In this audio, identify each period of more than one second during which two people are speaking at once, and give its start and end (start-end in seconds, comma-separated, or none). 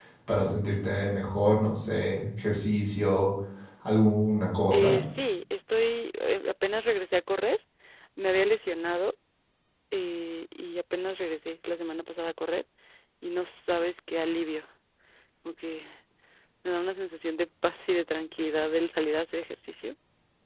none